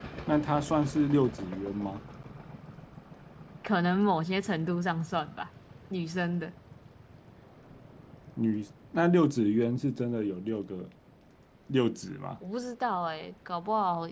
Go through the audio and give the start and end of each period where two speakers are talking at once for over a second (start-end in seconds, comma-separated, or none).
none